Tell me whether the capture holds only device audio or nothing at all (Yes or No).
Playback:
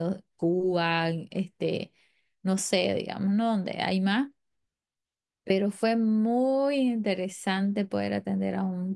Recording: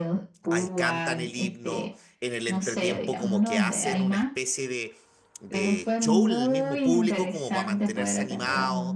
No